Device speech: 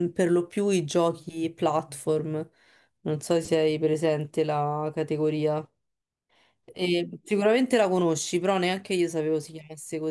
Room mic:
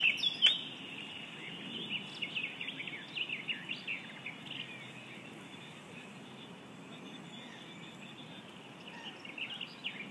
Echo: none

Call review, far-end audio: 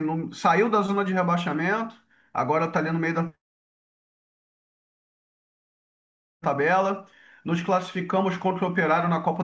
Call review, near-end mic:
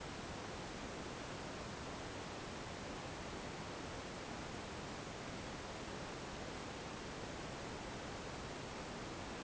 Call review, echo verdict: none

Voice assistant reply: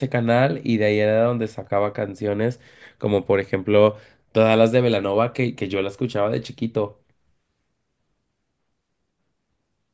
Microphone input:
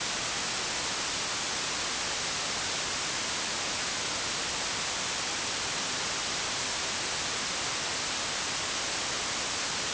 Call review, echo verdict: none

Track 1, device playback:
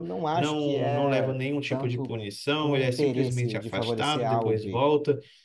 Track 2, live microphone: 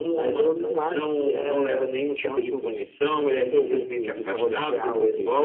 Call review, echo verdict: present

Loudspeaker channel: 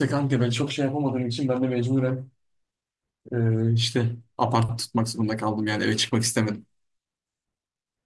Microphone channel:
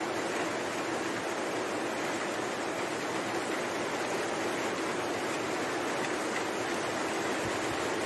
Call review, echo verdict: none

